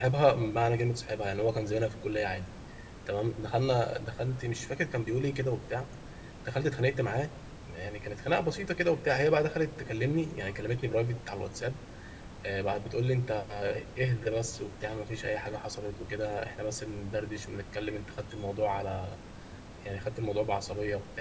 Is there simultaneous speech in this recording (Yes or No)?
No